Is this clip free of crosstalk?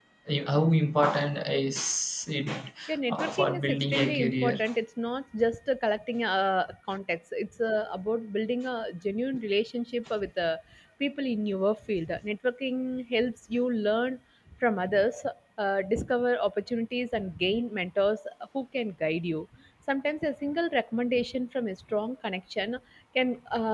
No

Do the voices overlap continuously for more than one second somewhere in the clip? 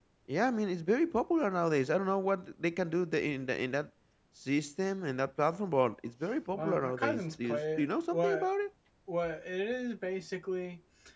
Yes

